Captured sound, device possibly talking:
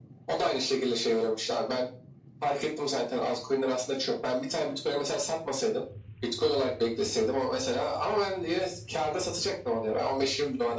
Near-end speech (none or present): none